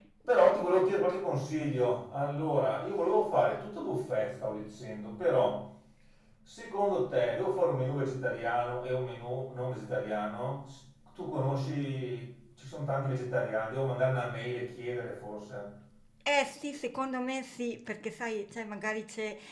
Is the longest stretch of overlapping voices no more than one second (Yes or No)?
Yes